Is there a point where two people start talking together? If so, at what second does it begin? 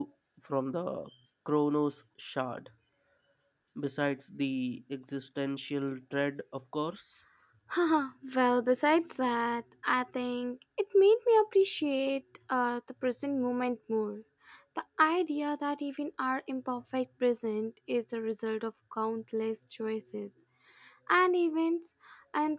none

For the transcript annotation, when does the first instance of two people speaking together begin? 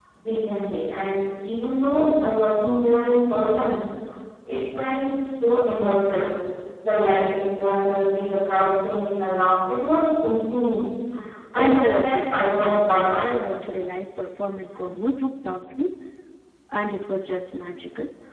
11.5 s

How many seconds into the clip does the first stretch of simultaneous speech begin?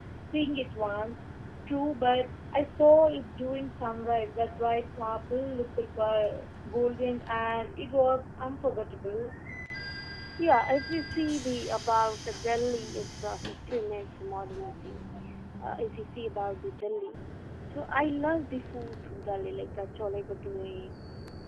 none

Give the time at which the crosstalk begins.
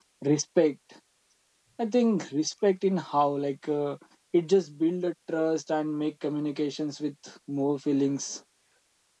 none

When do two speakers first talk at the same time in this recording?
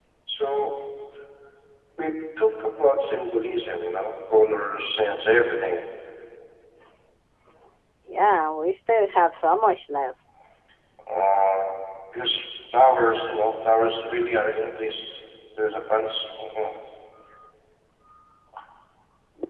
none

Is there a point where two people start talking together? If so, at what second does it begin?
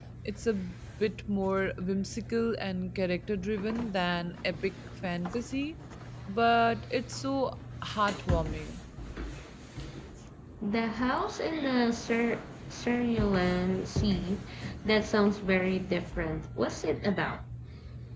none

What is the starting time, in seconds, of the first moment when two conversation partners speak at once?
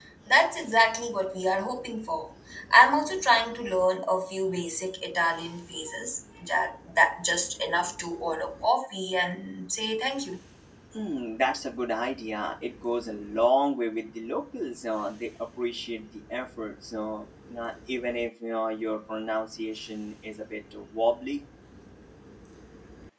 none

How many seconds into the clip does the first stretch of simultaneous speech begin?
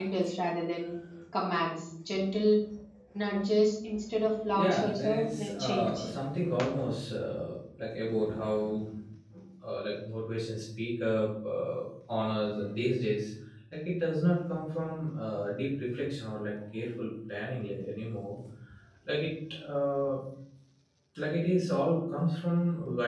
4.5 s

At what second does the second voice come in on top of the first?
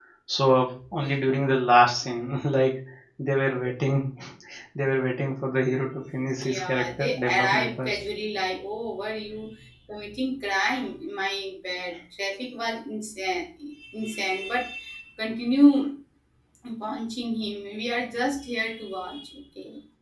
6.4 s

